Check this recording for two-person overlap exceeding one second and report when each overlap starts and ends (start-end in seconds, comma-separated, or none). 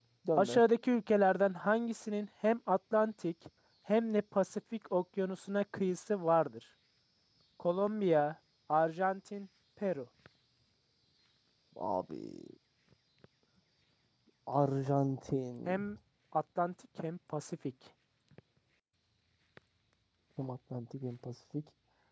none